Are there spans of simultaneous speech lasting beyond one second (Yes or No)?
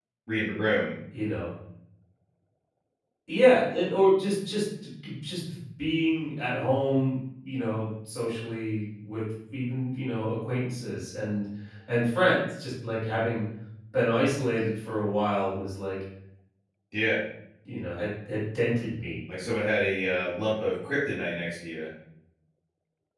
No